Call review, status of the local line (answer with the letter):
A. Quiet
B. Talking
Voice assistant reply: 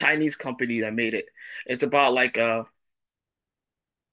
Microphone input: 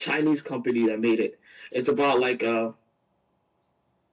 A